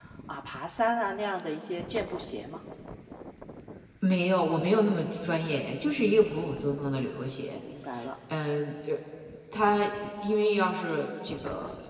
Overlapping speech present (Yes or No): No